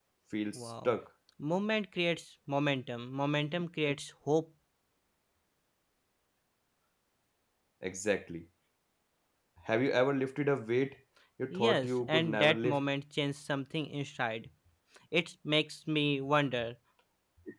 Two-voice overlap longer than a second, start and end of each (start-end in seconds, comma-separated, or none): 11.6-12.8